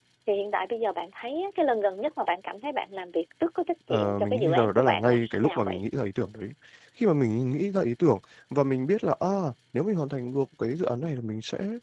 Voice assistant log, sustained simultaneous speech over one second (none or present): present